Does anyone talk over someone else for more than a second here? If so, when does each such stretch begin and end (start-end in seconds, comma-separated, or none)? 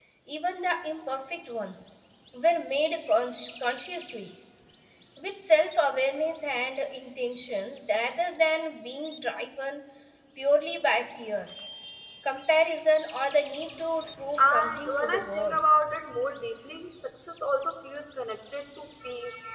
14.4-15.6